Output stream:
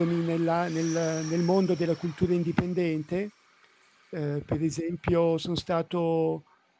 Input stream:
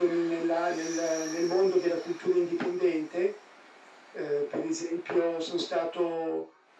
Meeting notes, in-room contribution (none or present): none